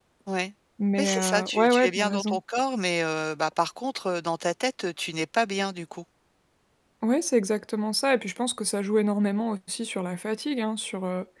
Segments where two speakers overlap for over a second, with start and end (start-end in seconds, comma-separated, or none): 1.0-2.4